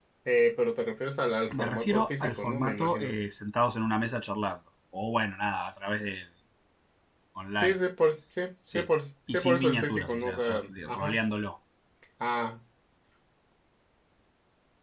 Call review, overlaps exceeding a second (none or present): present